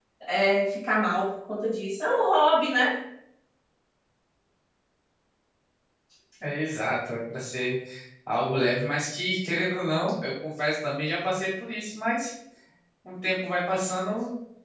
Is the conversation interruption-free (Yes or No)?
Yes